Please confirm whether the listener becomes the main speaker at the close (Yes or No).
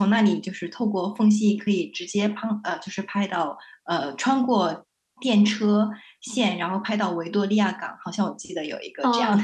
Yes